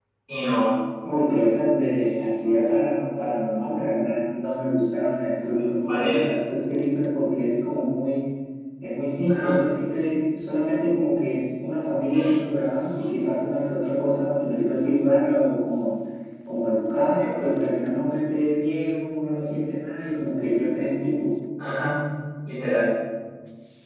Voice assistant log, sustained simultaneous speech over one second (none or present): none